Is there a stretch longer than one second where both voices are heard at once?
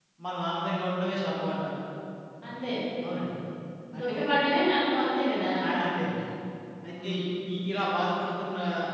No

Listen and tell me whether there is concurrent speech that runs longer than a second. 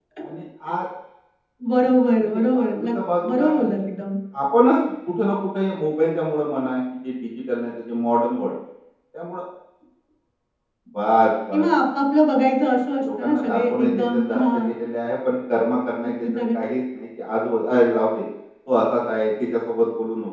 Yes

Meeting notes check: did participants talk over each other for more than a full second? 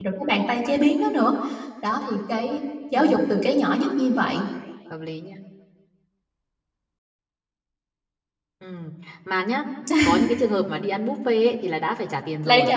No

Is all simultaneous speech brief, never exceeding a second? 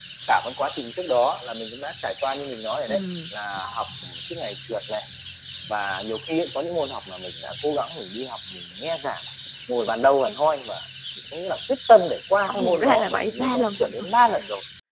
No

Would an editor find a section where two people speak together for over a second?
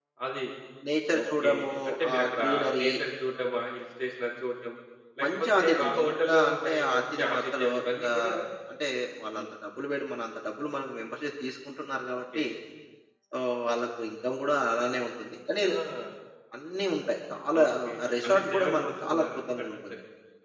Yes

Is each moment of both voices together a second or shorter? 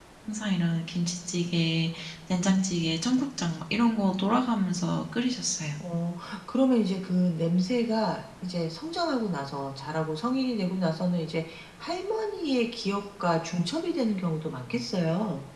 Yes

